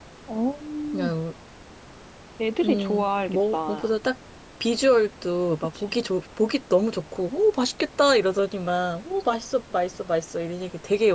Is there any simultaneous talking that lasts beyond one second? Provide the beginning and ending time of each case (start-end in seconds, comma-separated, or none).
2.6-3.9